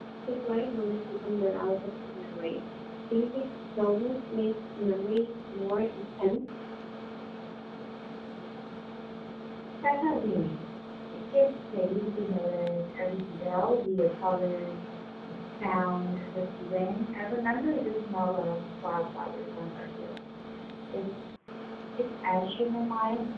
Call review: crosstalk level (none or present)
none